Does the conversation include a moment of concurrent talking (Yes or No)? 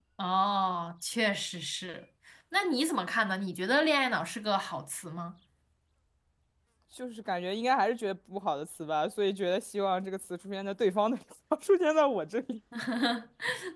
No